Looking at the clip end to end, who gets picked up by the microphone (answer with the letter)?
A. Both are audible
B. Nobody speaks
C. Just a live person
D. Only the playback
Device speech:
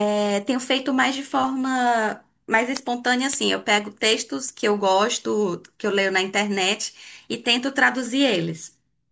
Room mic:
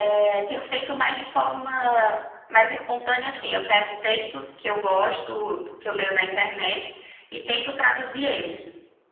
D